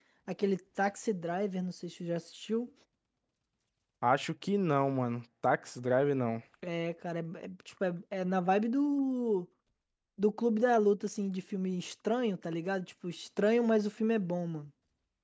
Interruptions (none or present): none